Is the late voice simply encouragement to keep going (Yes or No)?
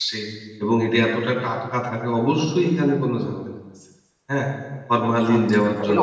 No